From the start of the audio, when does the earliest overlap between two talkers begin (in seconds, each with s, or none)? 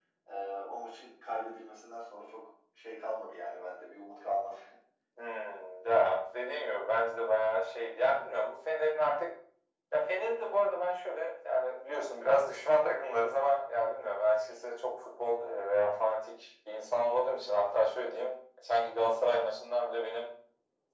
none